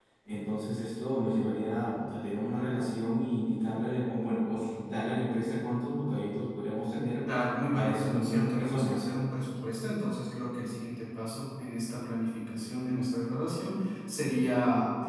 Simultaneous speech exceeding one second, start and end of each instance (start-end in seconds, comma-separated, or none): 7.7-9.0